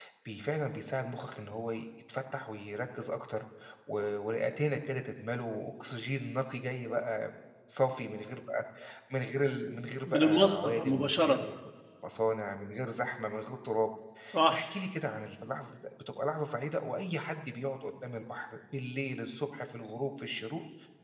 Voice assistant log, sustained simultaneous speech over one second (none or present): present